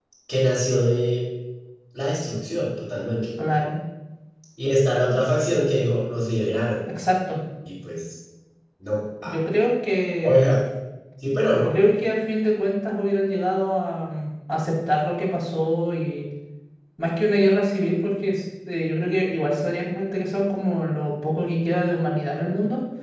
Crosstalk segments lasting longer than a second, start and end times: none

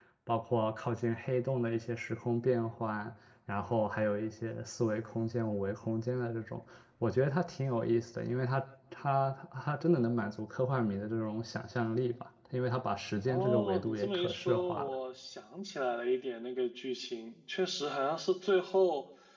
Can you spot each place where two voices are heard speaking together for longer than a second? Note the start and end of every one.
13.3-15.0

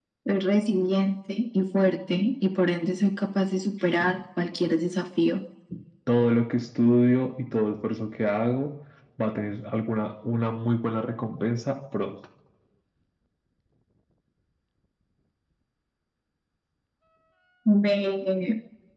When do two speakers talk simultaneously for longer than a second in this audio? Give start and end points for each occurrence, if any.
none

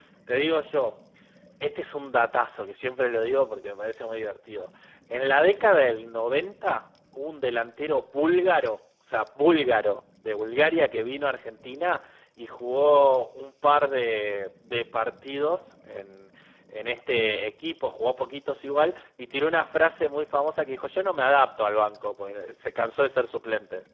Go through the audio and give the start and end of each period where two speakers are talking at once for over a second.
none

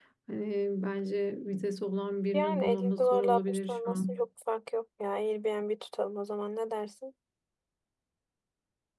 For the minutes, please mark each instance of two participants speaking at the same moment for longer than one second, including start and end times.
2.3-4.2

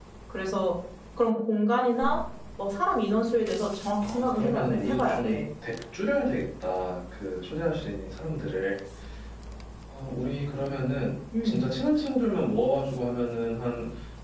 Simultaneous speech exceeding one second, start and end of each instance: 4.0-5.4

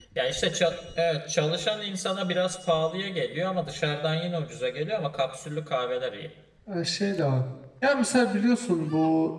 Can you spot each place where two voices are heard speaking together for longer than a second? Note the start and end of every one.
none

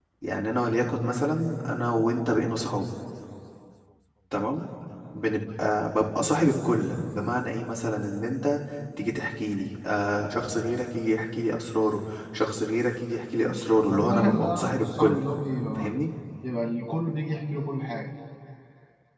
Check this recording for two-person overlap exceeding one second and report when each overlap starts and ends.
13.4-15.2

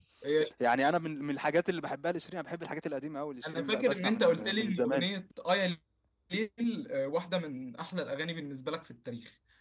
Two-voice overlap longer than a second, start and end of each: 3.5-5.0

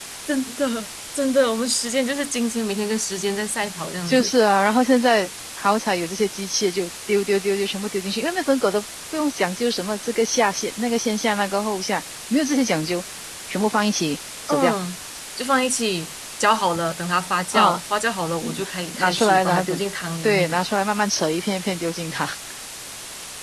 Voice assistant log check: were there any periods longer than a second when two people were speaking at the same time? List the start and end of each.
18.4-19.8

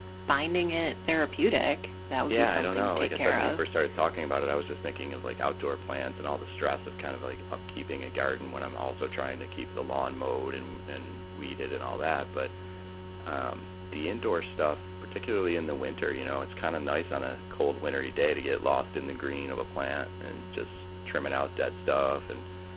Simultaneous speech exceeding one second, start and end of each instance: 2.3-3.6

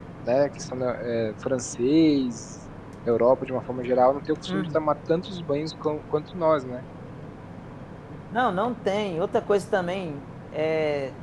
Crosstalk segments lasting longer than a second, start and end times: none

